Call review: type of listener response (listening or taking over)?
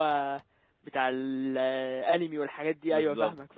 taking over